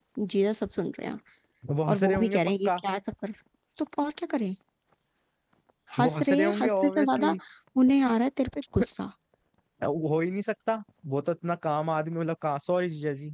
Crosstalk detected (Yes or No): Yes